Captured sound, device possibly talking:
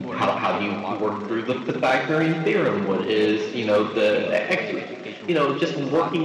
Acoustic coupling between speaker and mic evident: Yes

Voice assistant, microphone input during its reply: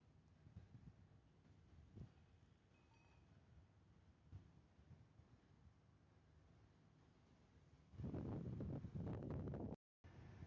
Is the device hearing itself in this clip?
No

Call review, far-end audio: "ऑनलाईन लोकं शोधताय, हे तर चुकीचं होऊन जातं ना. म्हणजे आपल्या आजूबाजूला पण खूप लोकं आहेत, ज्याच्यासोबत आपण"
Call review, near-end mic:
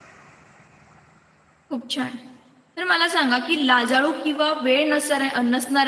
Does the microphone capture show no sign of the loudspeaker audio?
Yes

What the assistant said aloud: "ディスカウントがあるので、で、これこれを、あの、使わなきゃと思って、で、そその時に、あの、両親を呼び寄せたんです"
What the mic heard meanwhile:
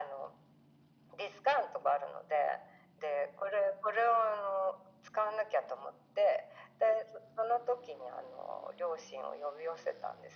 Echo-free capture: No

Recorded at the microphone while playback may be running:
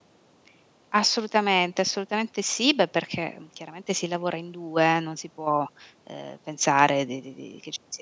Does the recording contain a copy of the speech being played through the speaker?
No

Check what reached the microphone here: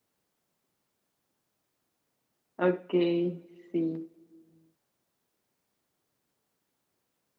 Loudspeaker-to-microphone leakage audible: No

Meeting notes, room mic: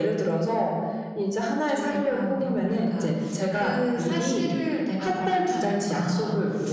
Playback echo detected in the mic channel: Yes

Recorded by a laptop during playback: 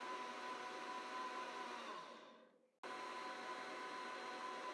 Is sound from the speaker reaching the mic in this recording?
No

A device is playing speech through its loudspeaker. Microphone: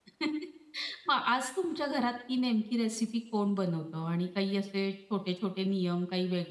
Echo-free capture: Yes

